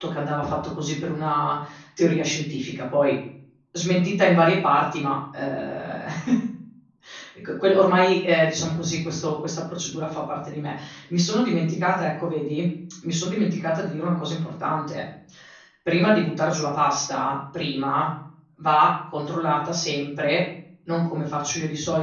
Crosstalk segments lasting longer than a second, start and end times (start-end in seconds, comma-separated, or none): none